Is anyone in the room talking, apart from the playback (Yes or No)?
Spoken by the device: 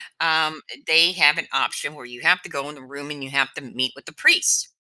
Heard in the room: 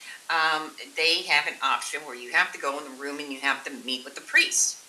No